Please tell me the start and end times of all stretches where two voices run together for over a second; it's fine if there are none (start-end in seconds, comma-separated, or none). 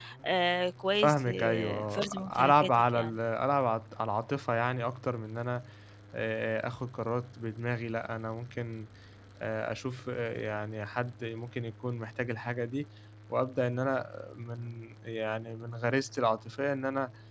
0.9-3.1